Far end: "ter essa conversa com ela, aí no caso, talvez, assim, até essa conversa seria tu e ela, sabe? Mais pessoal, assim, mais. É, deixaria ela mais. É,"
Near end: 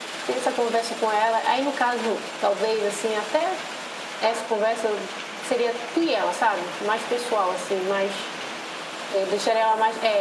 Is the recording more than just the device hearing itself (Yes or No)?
No